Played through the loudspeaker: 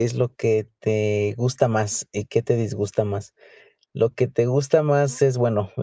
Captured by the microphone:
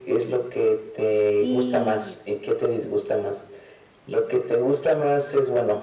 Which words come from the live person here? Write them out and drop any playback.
Y

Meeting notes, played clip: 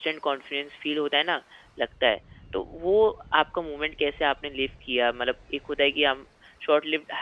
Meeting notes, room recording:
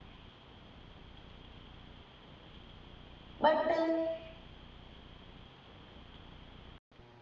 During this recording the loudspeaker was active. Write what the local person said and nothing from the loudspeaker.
बट

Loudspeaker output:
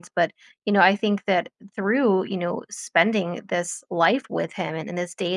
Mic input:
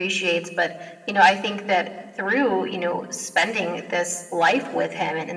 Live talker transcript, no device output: none

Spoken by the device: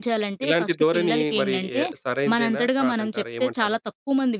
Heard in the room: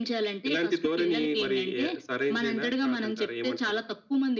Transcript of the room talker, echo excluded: none

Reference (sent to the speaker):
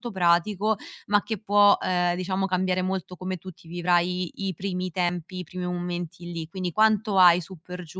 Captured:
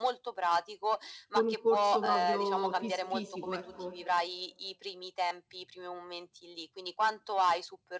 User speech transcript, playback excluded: con un corso proprio fis fisico, ecco.

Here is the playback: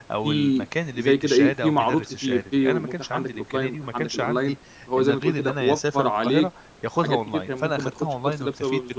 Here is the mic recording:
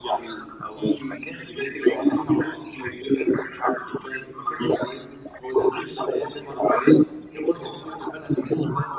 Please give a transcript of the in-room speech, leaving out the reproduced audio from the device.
none

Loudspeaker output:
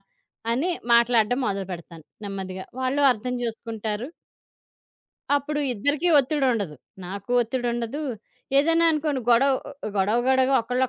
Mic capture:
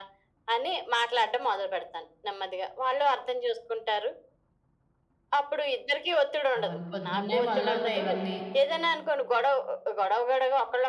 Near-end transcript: అవును. పొద్దున్నే మొదలవుతాయి ఇవన్నీ.

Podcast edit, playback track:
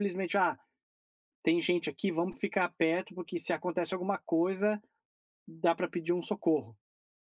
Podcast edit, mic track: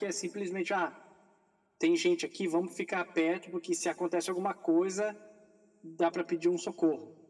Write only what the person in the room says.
none

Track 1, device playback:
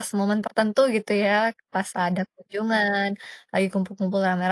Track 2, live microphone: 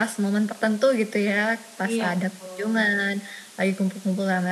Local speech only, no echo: Iya betul.

